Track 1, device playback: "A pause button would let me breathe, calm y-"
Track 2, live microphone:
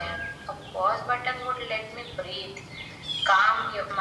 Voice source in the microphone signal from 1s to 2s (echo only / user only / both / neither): echo only